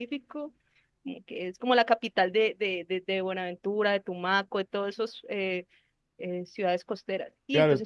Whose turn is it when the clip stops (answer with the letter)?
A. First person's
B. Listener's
B